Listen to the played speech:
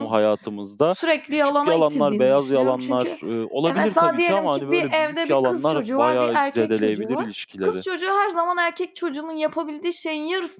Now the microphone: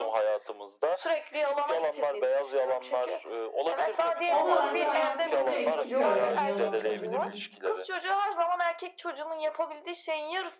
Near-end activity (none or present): present